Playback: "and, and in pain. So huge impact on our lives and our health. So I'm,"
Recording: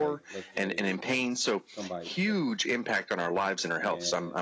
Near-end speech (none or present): present